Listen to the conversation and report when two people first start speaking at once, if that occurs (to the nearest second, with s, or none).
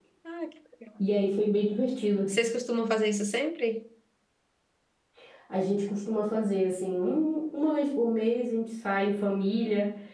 none